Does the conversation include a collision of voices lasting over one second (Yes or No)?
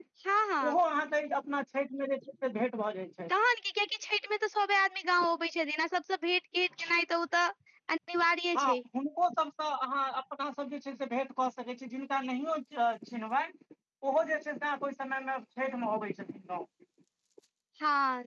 No